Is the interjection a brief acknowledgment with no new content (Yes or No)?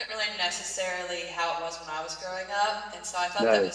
Yes